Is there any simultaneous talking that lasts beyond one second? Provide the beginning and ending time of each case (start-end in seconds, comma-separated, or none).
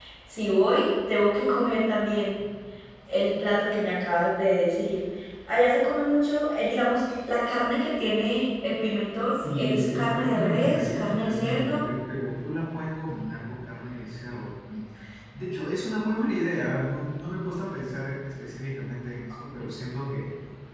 9.2-11.8